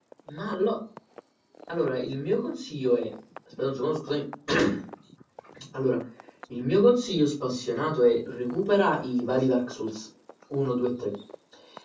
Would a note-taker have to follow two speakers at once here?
No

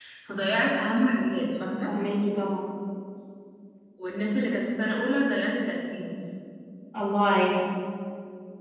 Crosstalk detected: No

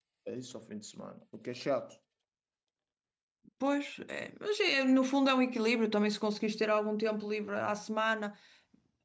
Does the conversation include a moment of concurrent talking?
No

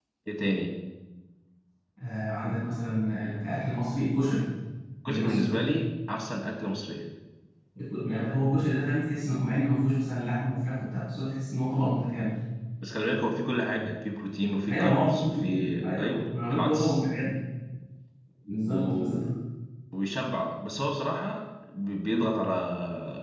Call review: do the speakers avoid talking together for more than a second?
No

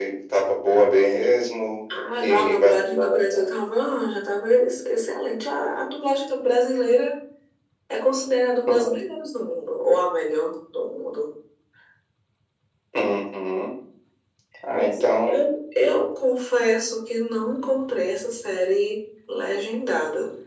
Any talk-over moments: Yes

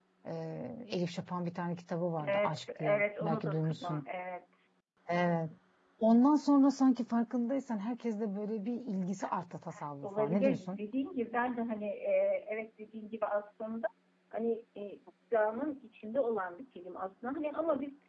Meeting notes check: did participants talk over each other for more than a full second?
Yes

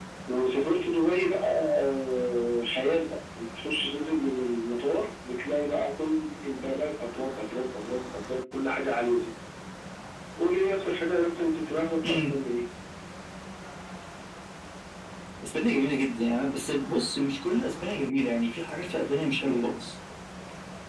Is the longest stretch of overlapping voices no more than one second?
Yes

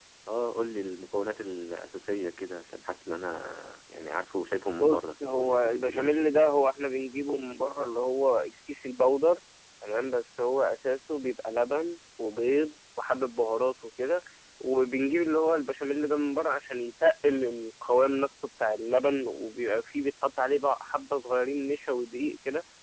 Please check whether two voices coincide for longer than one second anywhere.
Yes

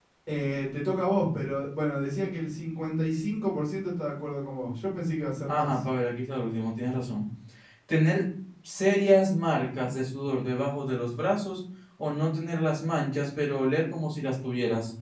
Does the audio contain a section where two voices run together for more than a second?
No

